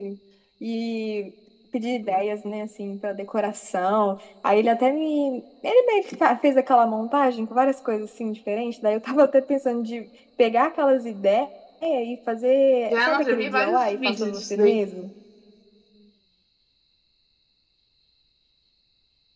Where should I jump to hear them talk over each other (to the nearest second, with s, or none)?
13 s